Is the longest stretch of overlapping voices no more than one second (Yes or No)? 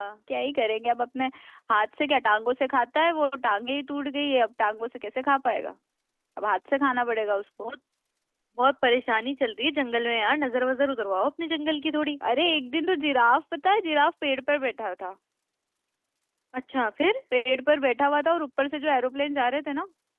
Yes